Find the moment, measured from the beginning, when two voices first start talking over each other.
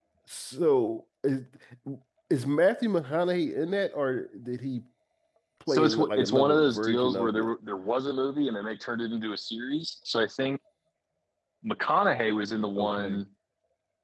6 s

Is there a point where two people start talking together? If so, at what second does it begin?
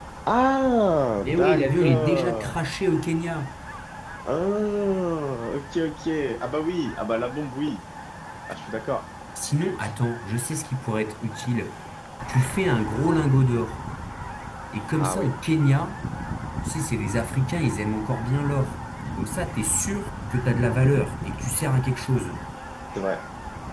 1 s

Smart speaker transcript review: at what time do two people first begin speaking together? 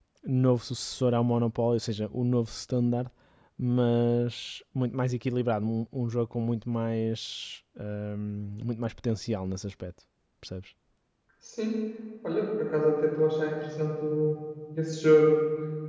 none

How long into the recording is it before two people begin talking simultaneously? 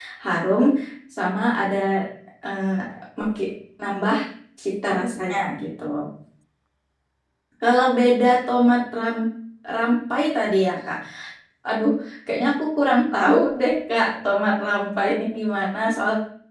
none

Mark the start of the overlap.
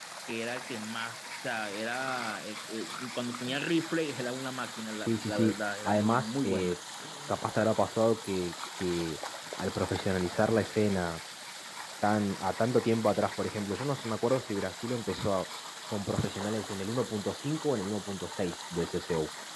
5 s

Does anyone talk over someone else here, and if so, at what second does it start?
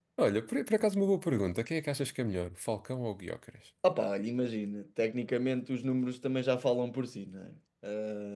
none

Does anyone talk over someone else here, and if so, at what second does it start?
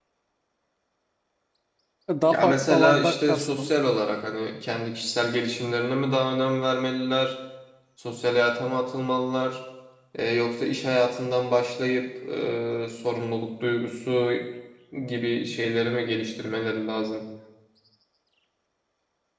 2 s

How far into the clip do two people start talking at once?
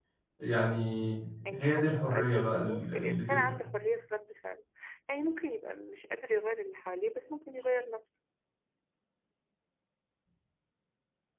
2 s

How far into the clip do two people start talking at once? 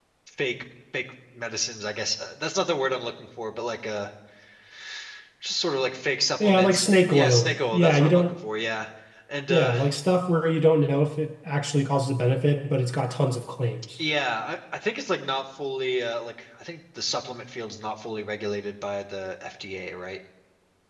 6 s

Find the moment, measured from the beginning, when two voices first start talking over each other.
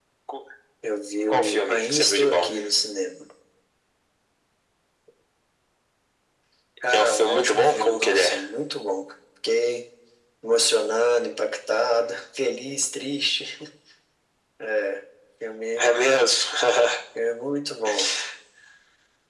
1 s

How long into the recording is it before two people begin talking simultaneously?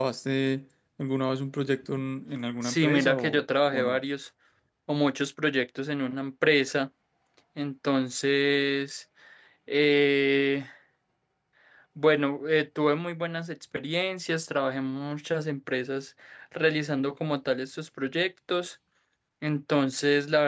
3 s

